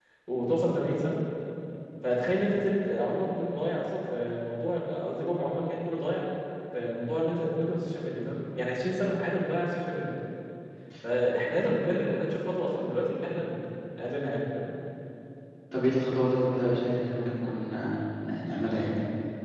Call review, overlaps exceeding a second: none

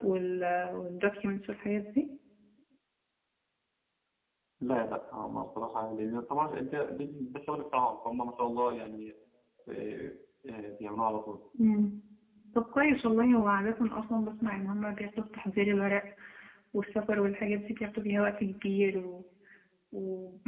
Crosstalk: none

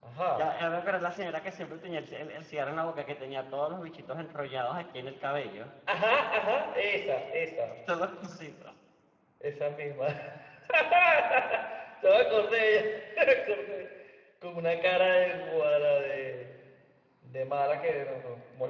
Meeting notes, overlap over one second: none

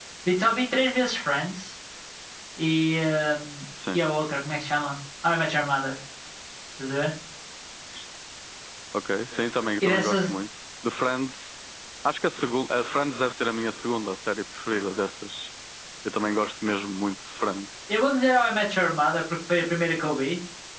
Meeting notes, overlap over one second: none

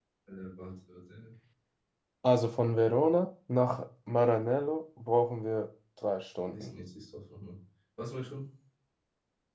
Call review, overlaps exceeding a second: none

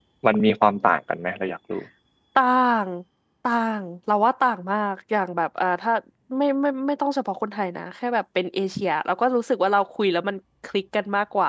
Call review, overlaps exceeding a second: none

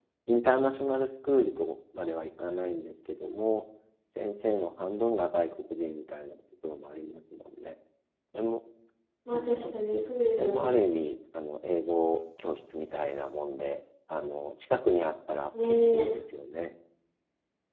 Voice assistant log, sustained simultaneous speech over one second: none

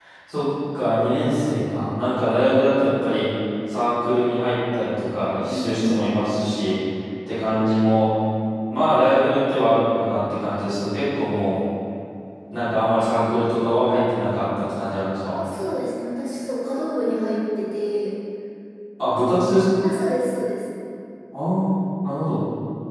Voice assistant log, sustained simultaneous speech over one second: none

